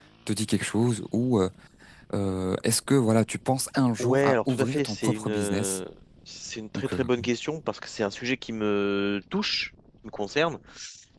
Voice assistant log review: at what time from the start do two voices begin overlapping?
4.0 s

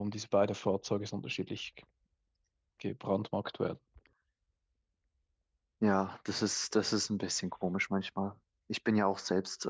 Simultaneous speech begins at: none

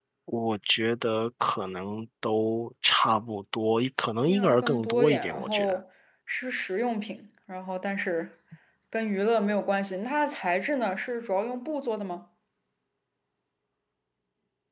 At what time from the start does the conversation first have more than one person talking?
4.3 s

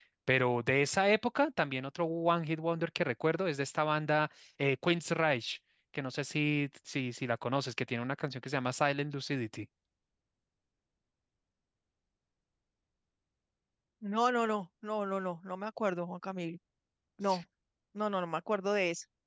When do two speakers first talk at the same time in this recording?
none

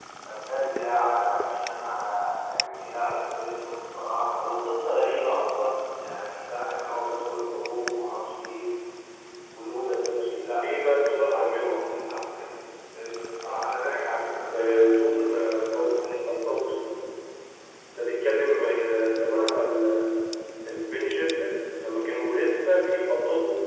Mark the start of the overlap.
10.6 s

